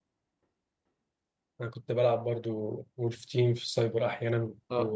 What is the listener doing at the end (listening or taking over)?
taking over